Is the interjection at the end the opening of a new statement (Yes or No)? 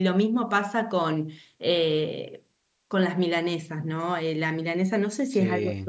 No